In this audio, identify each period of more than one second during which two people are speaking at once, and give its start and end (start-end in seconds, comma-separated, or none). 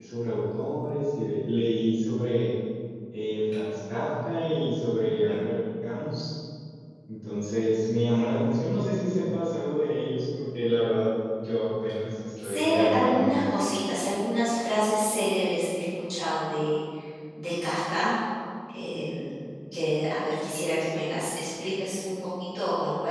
12.4-13.6